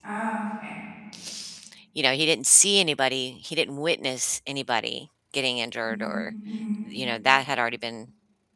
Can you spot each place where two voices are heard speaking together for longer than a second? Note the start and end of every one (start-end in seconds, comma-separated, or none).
none